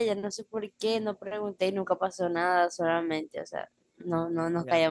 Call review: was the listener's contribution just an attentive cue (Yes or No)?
No